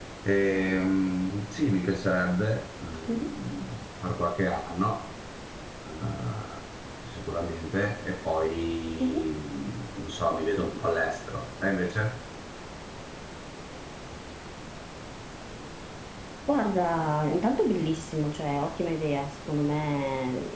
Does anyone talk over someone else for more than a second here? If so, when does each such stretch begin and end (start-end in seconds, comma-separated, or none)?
none